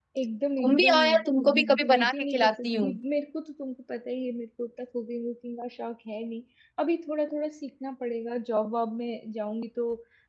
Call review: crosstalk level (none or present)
present